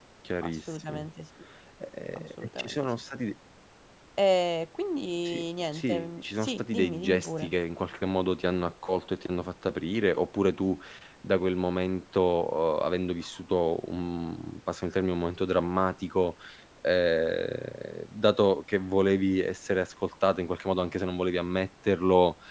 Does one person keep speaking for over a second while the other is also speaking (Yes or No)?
Yes